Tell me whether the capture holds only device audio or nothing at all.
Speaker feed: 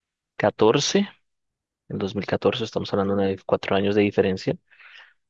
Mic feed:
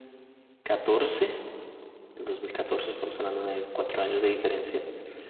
Yes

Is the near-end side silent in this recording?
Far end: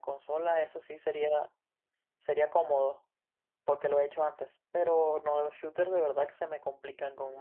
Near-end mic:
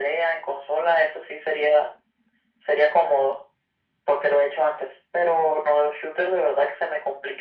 Yes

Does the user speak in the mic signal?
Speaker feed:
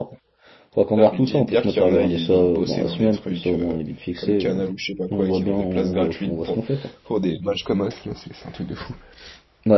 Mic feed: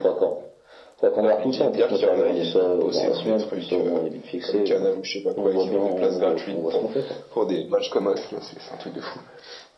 No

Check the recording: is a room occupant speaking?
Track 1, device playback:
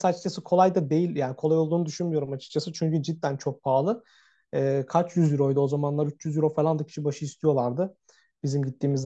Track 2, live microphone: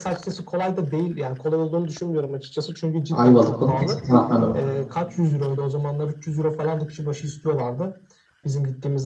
Yes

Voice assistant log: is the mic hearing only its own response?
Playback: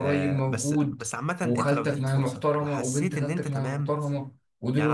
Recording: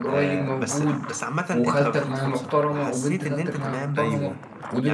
No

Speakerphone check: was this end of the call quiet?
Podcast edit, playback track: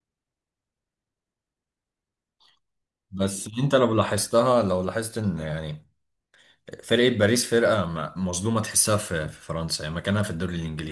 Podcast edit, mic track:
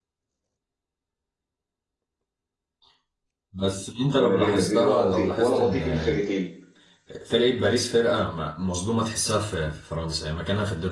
No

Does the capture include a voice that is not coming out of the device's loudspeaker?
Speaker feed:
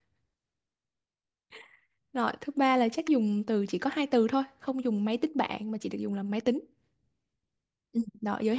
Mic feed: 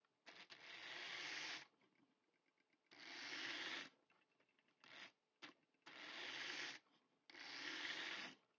No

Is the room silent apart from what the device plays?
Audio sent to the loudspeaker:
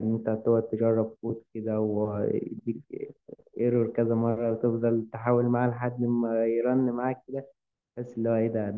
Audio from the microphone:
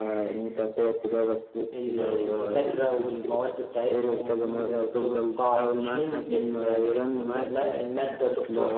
No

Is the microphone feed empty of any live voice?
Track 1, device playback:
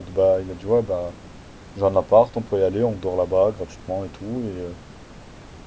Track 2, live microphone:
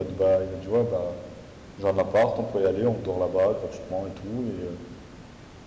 Yes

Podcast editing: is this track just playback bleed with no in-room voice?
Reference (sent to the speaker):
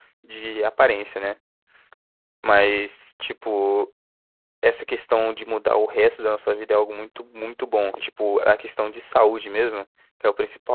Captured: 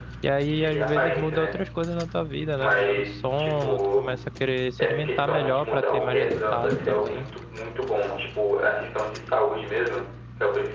No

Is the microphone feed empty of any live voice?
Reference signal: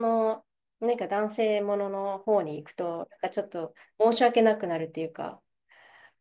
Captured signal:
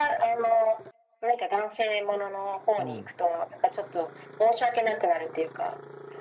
No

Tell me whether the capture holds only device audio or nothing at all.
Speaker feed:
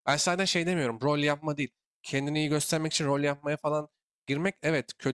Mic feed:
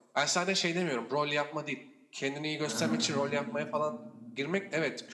No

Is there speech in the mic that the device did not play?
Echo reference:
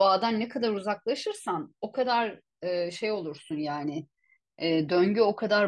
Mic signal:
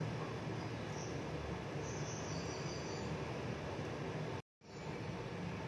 No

